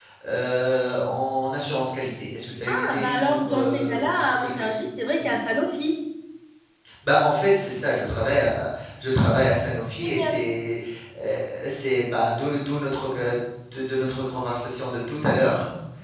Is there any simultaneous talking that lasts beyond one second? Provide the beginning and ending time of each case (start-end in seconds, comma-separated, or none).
2.7-4.6